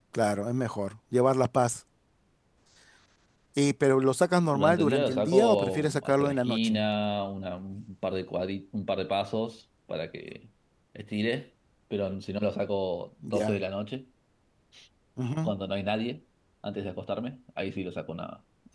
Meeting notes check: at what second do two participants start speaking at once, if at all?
4.4 s

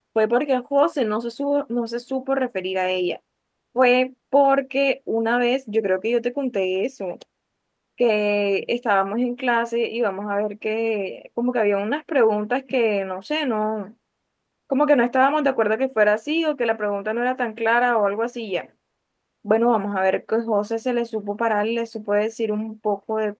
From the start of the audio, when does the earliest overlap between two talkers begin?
none

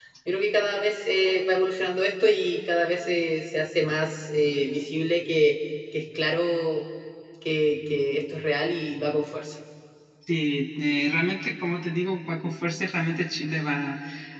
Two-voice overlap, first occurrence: none

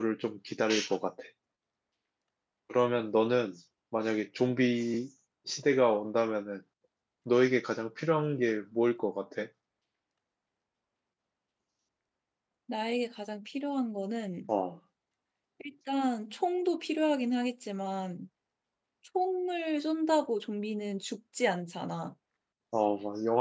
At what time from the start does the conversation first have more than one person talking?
none

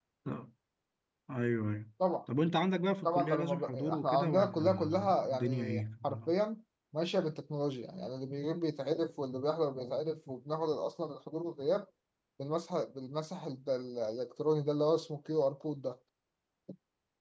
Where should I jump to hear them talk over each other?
3.0 s

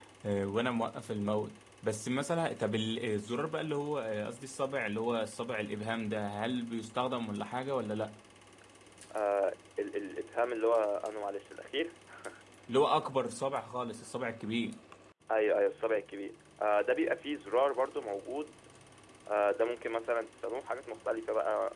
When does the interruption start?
none

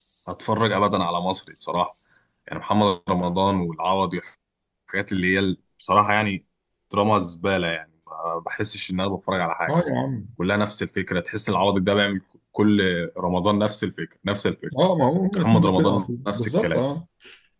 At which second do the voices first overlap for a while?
15.3 s

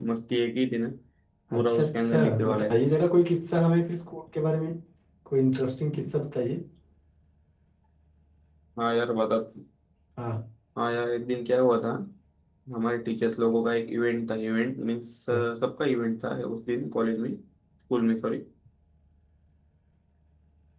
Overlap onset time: 1.6 s

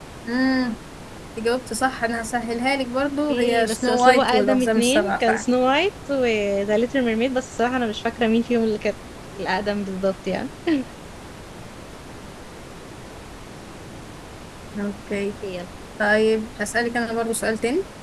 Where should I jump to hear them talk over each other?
3.3 s

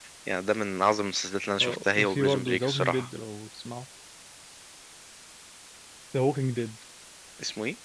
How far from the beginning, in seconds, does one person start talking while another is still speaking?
1.6 s

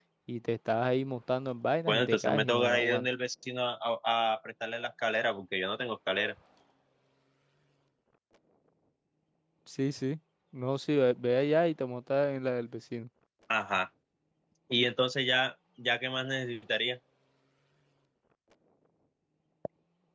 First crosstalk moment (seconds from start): 1.9 s

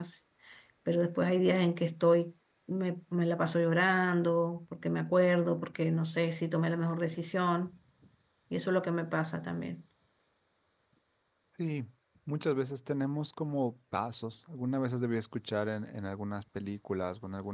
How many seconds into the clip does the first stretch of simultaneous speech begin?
none

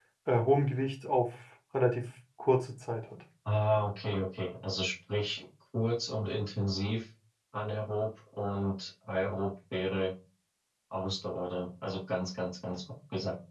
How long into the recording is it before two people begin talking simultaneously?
none

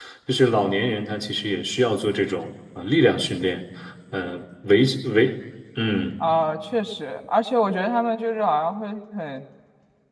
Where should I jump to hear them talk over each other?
none

